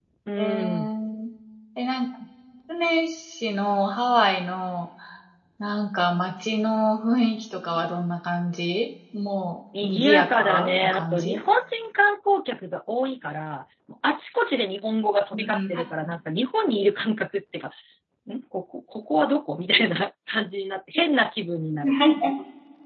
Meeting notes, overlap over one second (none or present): present